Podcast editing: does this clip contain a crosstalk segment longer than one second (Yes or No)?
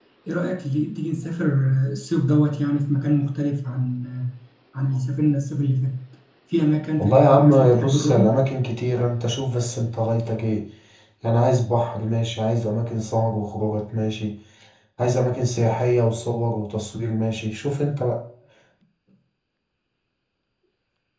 Yes